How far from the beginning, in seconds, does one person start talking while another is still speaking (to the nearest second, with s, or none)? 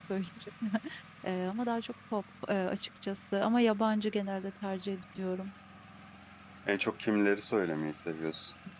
none